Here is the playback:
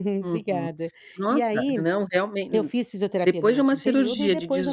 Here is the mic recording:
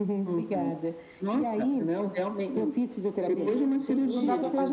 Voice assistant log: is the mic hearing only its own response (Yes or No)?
No